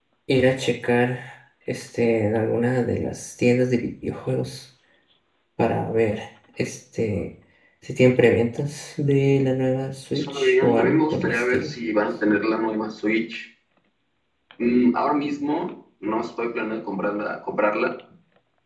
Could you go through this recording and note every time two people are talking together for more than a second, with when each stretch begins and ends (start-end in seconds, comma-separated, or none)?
10.2-11.7